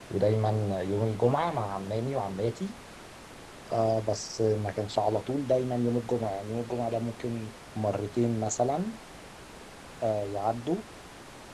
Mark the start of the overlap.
none

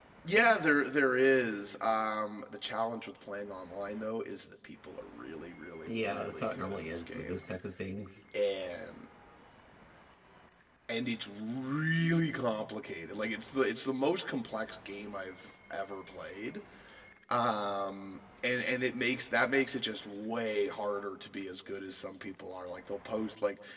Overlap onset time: 5.9 s

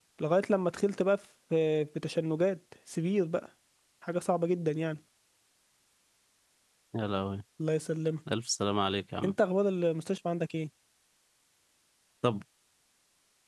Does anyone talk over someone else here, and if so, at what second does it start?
none

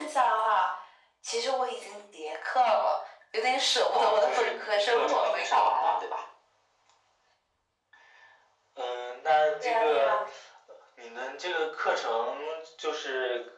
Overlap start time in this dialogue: 3.9 s

